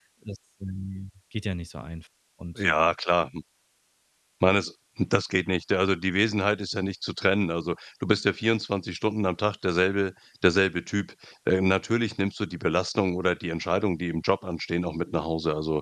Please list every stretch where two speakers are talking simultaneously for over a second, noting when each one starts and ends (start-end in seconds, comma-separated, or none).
none